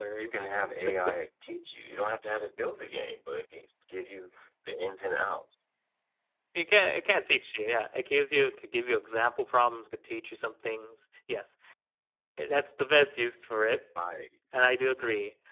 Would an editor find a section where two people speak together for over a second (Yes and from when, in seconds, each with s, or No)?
No